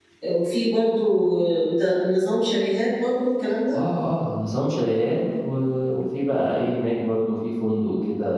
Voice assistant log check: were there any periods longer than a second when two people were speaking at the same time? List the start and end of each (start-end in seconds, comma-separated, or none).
none